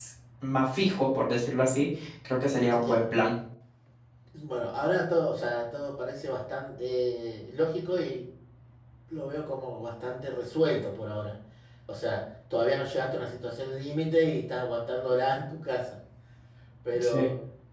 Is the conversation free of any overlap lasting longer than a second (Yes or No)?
Yes